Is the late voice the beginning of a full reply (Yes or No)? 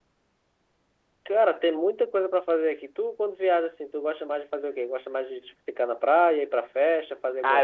Yes